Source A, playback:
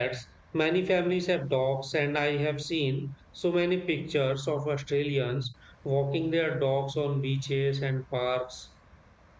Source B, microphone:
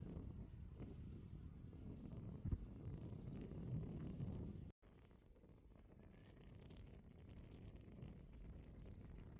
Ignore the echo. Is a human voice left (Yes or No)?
No